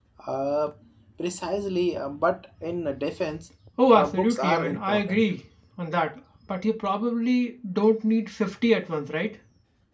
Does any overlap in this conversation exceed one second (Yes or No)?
Yes